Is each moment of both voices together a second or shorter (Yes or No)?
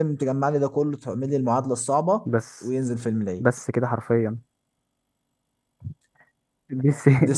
Yes